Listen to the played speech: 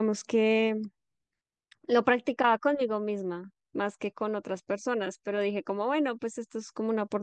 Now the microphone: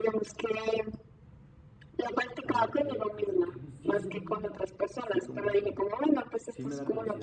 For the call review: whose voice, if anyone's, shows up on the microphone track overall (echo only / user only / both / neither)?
both